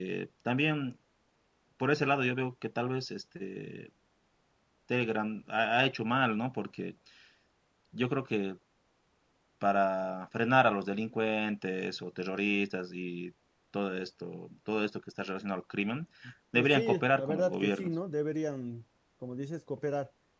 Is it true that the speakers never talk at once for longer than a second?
No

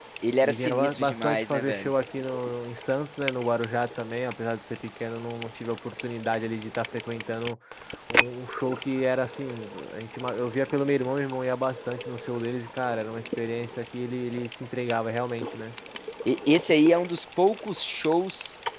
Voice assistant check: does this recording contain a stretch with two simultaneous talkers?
Yes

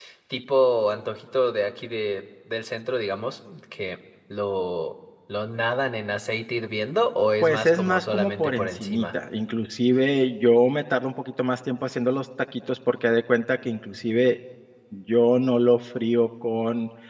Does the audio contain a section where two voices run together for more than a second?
Yes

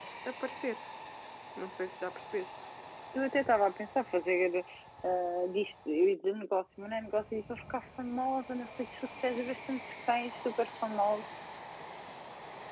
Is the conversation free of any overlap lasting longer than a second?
Yes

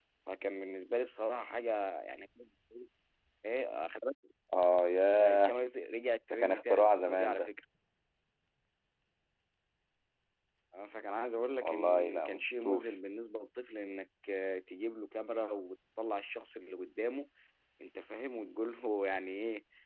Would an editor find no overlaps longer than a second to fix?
No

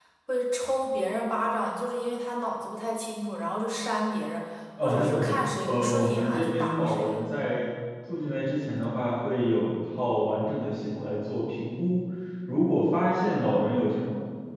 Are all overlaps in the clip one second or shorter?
No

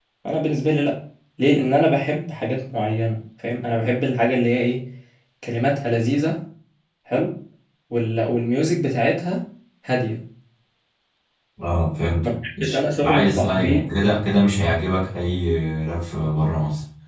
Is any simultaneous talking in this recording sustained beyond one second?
Yes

